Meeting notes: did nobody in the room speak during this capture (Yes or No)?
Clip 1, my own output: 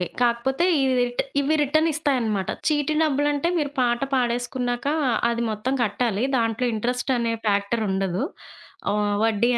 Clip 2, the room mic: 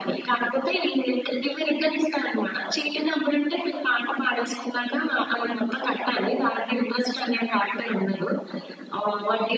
Yes